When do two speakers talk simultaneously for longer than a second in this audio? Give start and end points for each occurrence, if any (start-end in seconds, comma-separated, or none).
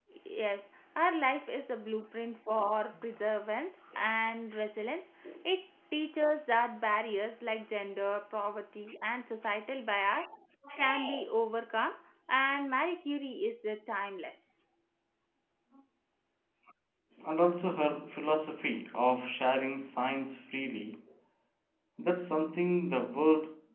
none